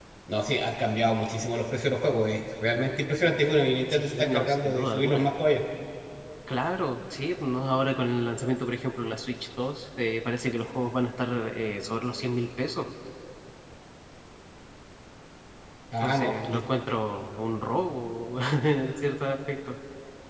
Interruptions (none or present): present